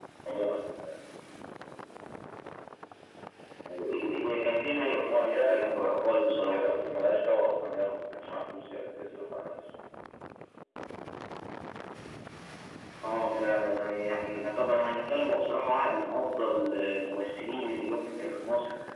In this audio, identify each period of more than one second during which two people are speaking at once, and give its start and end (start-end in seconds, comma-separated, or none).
4.7-6.6